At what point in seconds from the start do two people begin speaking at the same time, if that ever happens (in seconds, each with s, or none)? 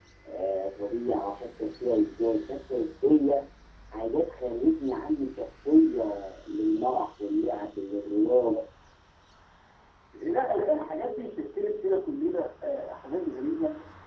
none